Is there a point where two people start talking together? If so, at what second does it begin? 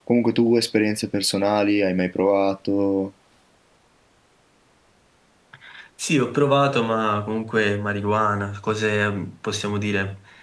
none

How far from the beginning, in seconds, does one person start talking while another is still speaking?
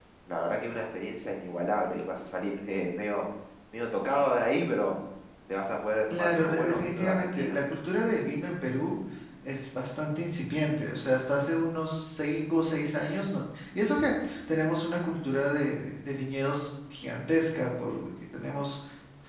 6.1 s

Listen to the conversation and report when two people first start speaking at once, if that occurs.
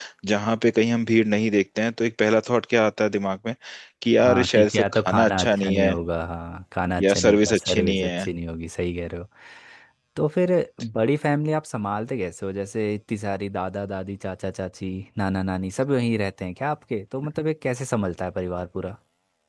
4.2 s

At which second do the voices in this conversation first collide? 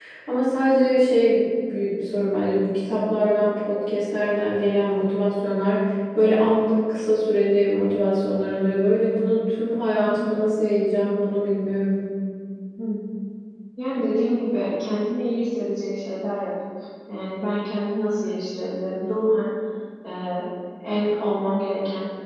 none

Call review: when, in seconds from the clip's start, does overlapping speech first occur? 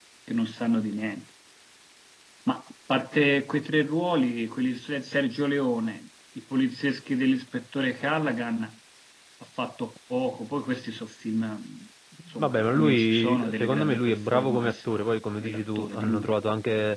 12.2 s

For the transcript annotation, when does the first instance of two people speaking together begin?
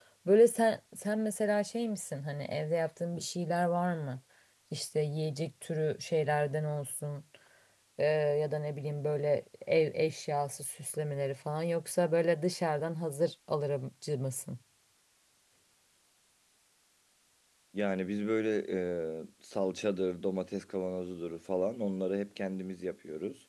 none

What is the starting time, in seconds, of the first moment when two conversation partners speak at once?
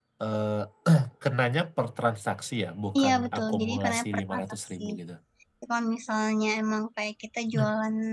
3.0 s

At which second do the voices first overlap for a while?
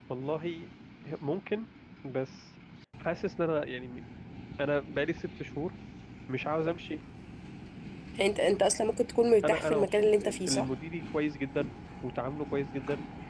9.4 s

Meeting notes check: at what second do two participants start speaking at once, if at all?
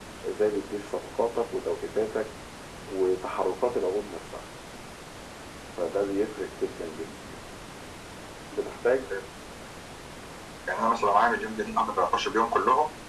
none

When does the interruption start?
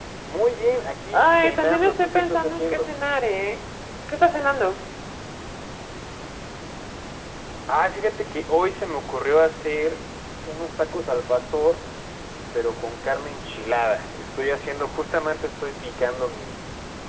1.1 s

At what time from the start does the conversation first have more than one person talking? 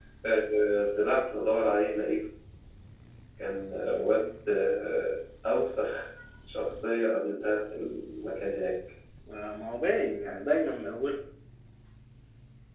none

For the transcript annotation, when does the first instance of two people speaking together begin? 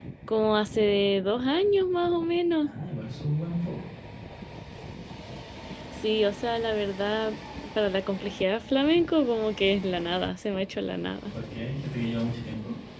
none

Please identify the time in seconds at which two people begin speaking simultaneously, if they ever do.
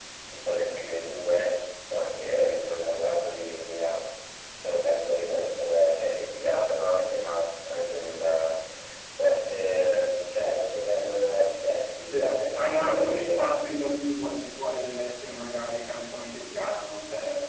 12.1 s

